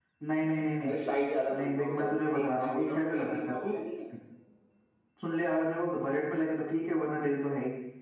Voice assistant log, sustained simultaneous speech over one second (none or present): present